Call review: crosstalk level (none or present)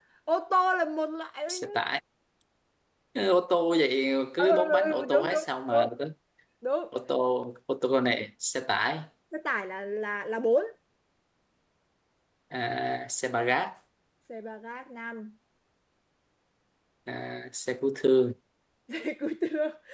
present